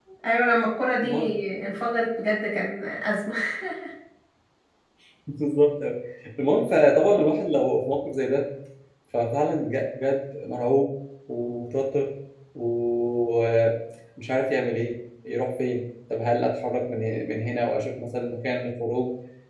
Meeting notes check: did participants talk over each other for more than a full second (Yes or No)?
No